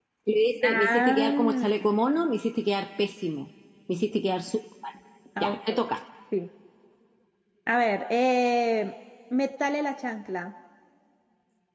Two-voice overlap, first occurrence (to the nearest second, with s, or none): 1 s